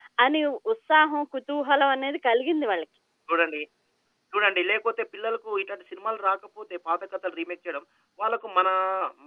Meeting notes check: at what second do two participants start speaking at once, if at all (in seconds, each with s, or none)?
none